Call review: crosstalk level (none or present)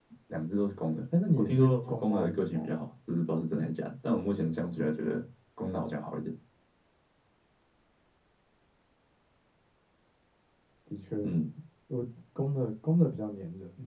present